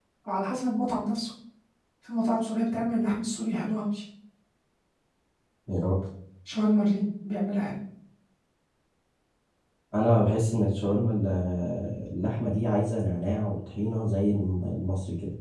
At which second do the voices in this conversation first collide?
none

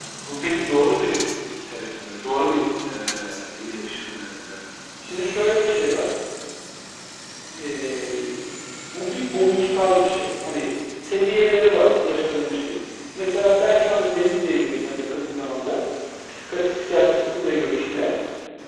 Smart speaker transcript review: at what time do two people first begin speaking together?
none

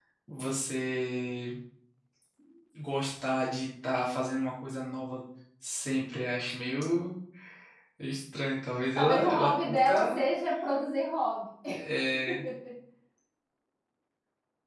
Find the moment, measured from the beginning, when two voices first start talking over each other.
9 s

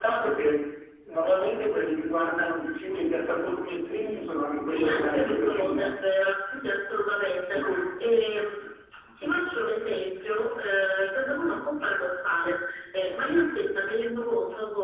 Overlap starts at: 5 s

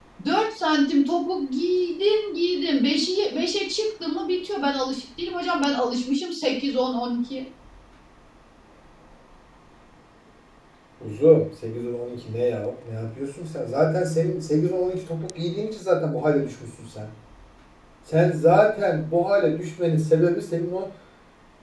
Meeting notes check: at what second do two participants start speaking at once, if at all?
none

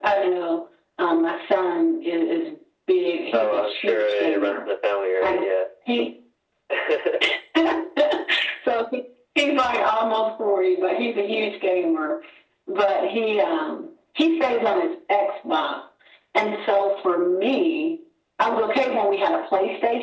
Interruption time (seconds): 3 s

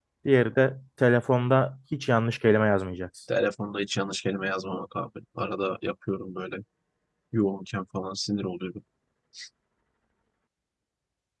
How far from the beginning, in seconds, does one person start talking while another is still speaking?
none

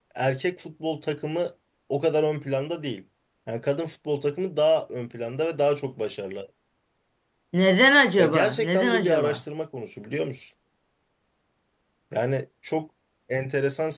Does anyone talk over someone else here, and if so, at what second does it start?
8 s

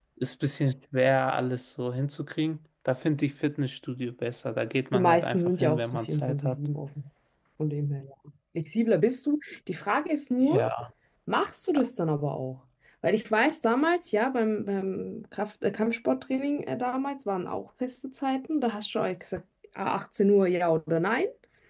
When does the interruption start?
5 s

